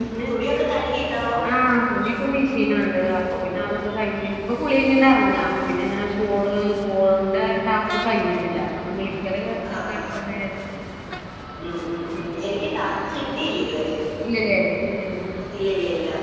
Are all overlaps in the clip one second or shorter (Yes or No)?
Yes